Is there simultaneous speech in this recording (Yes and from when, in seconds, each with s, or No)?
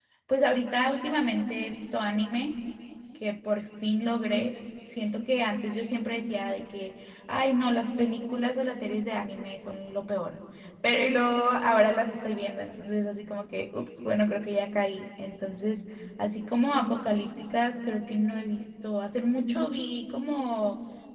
No